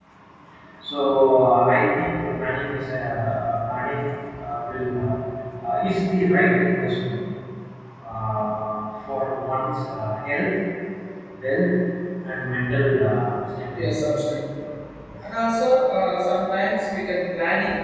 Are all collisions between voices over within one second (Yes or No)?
Yes